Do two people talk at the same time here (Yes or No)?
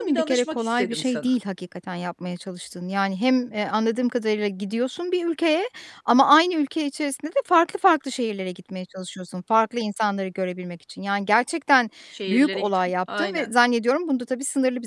Yes